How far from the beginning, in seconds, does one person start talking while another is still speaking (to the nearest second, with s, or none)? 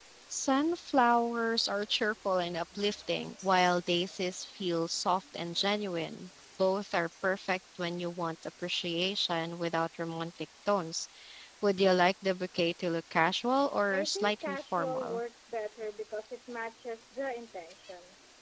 14 s